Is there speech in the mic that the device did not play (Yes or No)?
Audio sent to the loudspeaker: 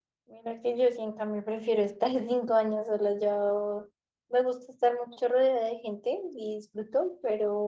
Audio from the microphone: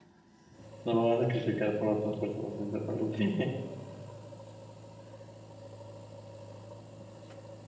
Yes